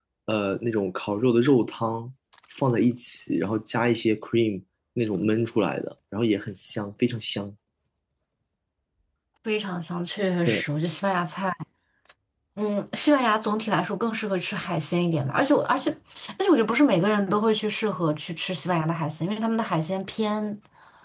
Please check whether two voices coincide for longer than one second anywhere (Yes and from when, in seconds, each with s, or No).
No